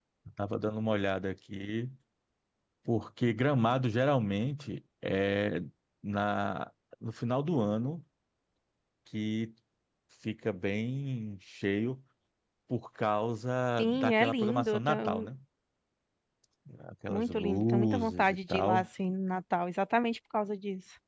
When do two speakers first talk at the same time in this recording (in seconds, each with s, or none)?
13.8 s